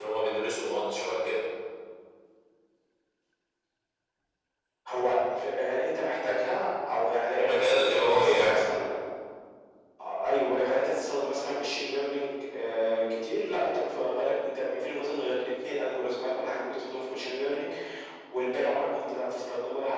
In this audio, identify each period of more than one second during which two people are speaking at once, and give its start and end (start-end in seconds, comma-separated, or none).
7.4-8.6